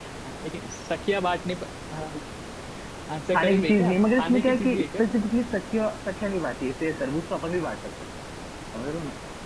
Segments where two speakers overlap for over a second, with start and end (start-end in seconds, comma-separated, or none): 3.3-5.0